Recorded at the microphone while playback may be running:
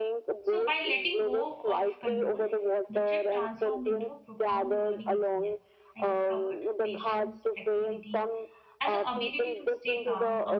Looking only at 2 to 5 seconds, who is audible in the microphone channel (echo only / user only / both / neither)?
both